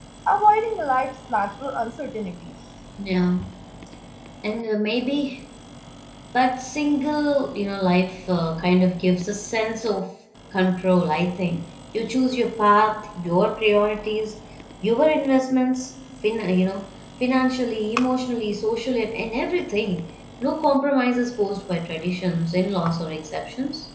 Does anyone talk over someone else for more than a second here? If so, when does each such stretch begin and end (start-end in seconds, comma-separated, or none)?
none